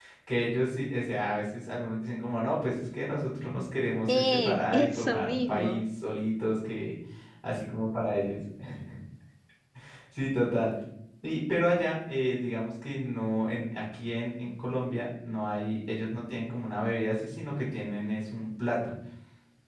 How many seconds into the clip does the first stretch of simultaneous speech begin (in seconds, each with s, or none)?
4.1 s